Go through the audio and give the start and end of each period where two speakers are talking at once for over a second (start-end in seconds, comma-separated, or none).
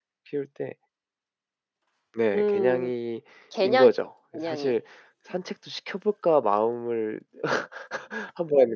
none